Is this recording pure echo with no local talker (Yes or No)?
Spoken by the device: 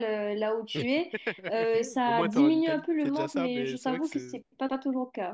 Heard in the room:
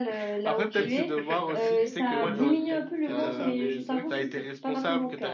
No